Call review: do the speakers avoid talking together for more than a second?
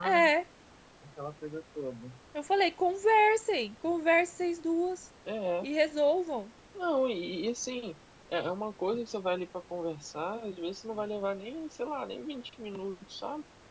Yes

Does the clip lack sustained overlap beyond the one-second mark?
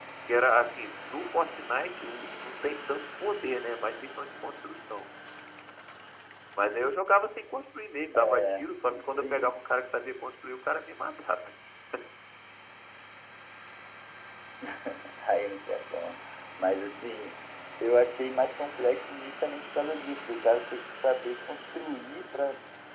No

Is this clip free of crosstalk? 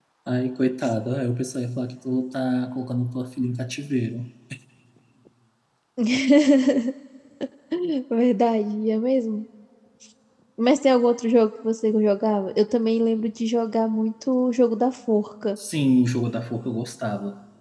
Yes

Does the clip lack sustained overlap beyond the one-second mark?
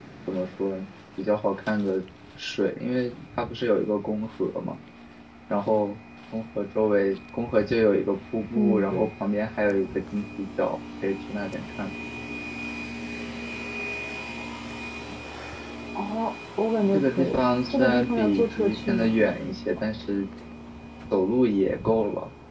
No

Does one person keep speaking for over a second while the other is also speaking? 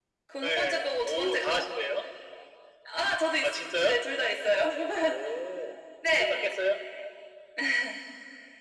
Yes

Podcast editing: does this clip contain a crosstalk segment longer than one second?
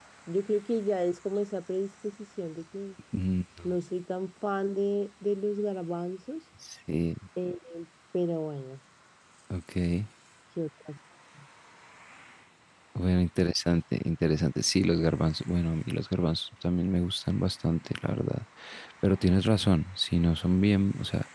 No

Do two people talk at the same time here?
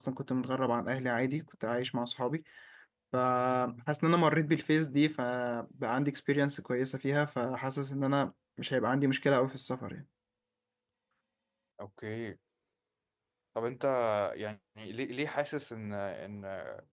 No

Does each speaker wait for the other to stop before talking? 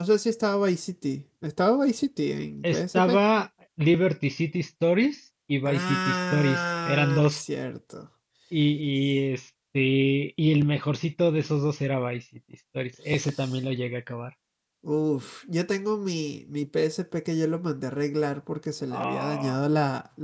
No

